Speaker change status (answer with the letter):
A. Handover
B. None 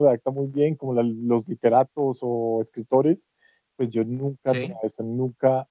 B